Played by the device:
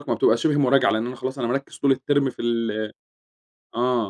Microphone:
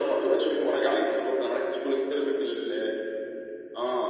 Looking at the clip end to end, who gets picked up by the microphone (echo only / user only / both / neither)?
echo only